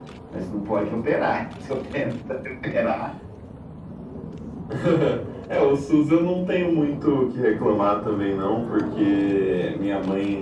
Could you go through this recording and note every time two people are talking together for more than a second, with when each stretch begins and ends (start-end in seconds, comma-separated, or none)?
none